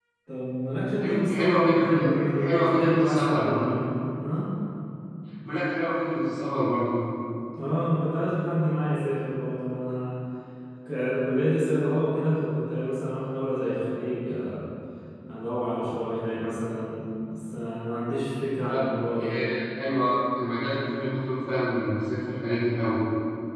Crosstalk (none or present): present